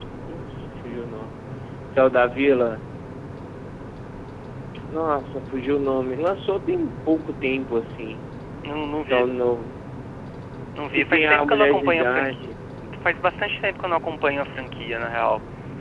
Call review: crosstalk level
present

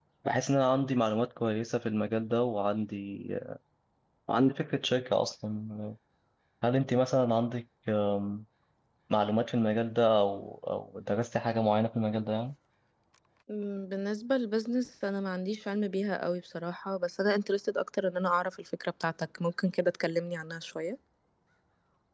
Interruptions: none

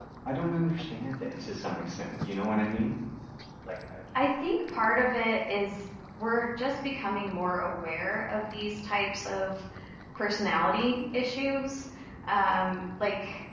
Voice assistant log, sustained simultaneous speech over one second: none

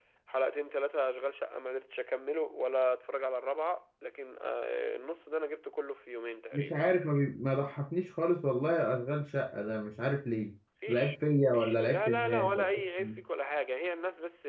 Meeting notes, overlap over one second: present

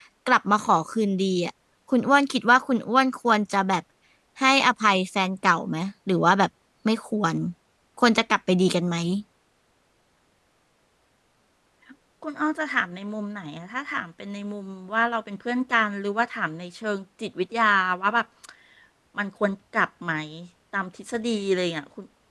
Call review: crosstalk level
none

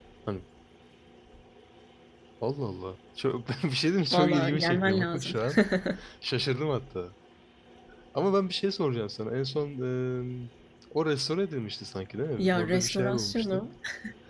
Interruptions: present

